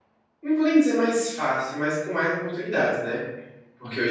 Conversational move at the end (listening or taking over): listening